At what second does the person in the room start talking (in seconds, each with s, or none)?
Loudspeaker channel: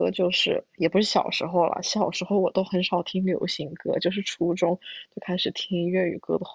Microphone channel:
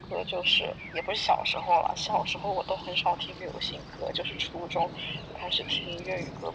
none